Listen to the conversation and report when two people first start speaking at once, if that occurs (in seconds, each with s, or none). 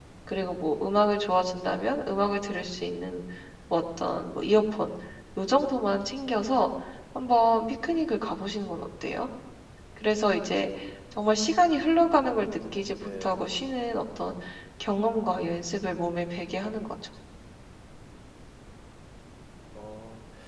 11.7 s